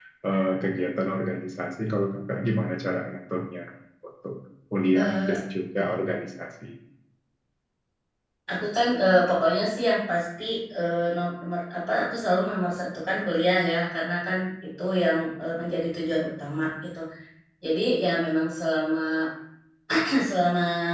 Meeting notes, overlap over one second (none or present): none